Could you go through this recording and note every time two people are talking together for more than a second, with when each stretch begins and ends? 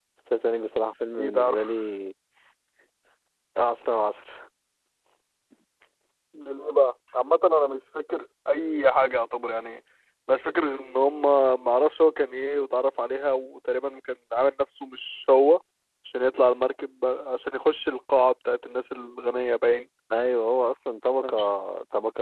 none

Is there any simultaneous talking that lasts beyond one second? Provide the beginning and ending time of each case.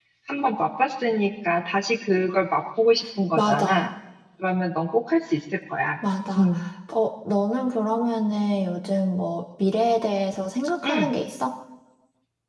none

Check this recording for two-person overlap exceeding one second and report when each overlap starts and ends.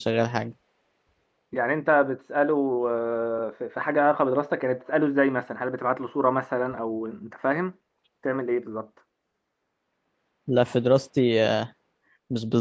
none

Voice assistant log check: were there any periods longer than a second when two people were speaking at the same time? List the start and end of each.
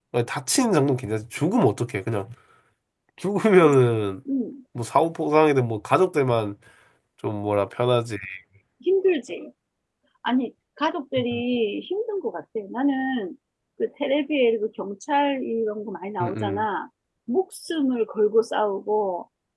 none

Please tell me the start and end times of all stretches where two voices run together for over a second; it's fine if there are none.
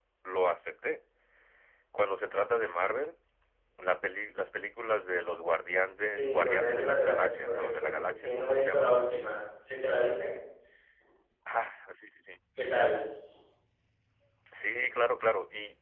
6.1-8.9

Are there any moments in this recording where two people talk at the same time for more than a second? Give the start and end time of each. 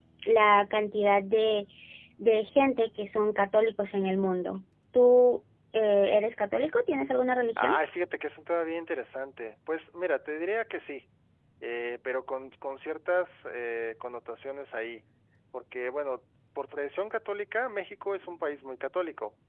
none

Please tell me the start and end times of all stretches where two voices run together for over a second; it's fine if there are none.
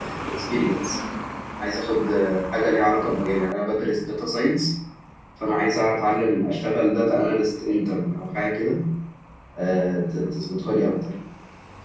none

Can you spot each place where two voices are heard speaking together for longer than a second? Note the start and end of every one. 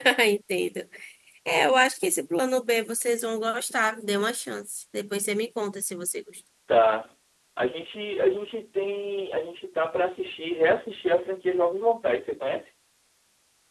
none

